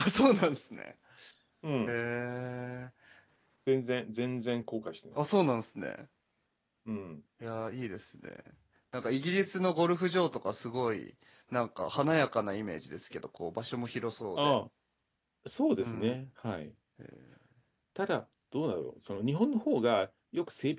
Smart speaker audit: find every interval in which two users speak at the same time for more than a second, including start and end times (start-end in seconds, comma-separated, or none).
none